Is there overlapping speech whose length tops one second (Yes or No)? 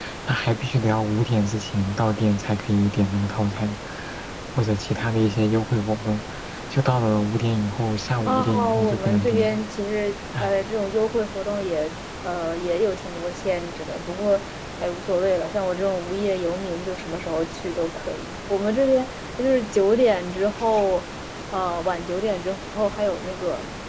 Yes